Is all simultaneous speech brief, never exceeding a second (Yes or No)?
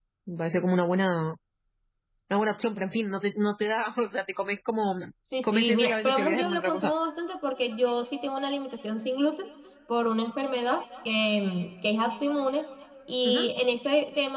No